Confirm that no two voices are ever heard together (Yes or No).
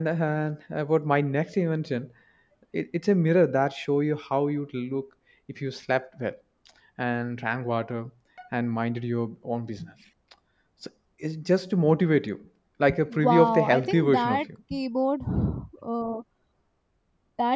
No